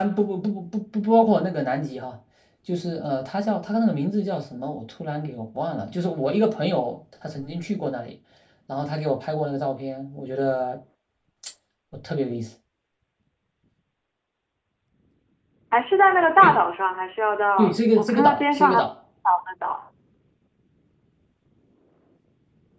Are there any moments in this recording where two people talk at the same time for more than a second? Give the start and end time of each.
17.6-18.9

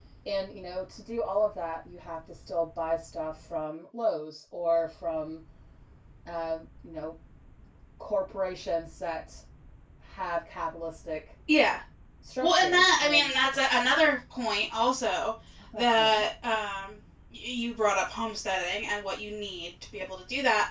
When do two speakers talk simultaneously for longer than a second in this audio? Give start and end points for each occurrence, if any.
12.4-14.0

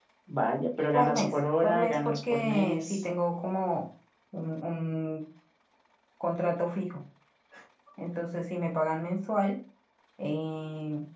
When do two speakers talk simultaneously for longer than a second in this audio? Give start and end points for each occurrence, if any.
0.9-3.1

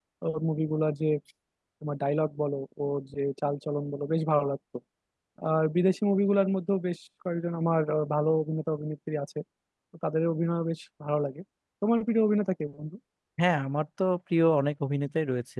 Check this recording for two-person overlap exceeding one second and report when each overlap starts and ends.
none

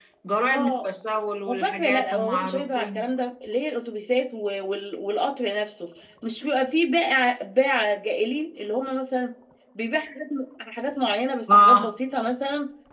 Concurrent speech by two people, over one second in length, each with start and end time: 1.5-3.0

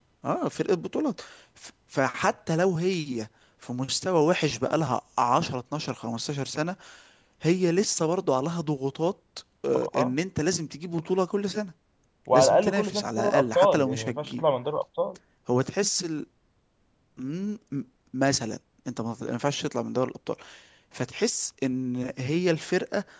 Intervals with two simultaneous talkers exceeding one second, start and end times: 12.3-14.4

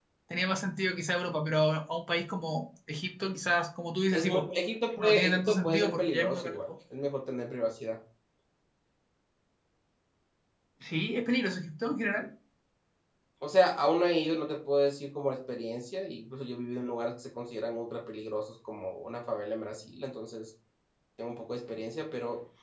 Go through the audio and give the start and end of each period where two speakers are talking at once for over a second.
5.0-6.5

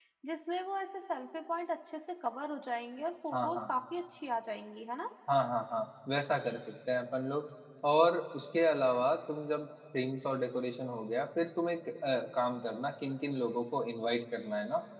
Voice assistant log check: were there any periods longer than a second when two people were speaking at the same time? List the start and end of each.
none

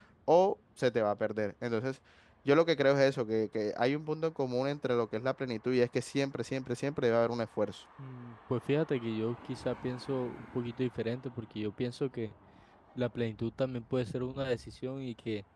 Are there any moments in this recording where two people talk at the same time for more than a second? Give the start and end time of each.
none

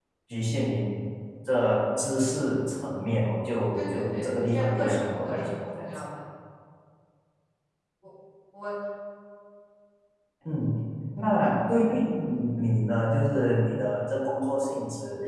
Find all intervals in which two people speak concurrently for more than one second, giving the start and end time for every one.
3.8-5.8

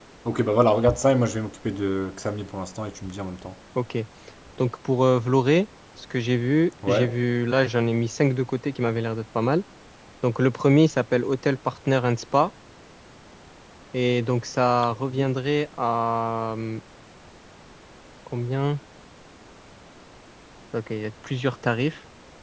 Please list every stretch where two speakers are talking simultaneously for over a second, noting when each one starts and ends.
none

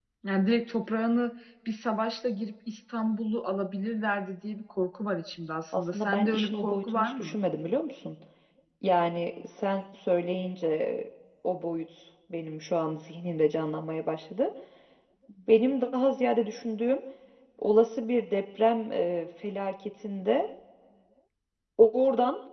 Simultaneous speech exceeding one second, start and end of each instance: 5.8-7.4

